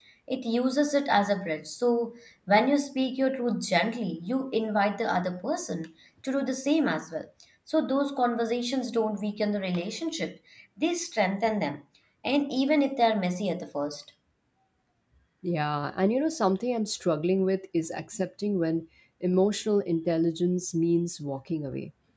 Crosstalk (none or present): none